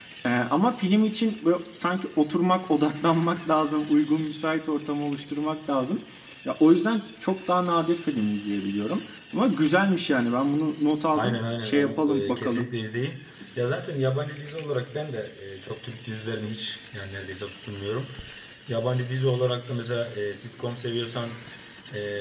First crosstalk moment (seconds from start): 11.1 s

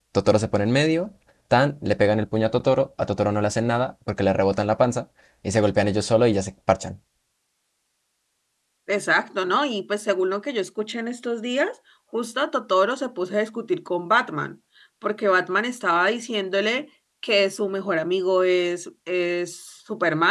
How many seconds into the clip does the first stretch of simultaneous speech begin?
none

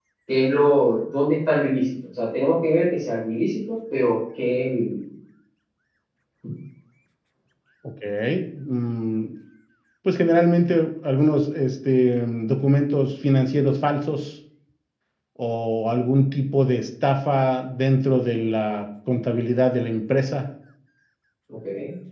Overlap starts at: none

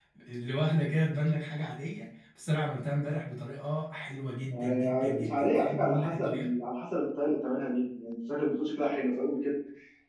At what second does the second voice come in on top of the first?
4.5 s

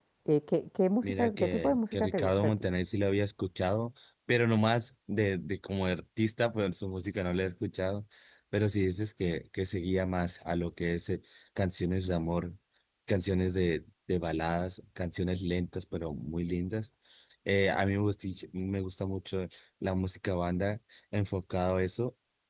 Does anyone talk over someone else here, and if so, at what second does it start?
1.0 s

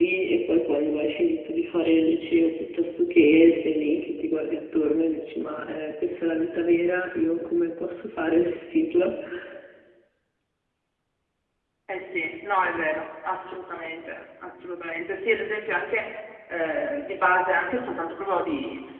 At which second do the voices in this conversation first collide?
none

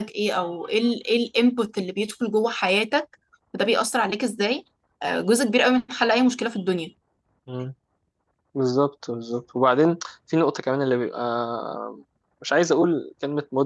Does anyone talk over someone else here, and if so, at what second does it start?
none

